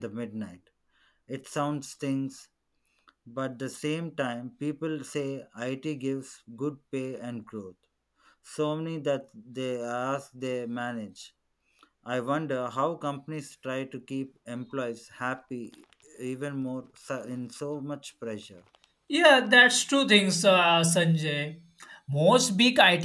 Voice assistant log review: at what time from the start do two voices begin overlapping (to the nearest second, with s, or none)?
none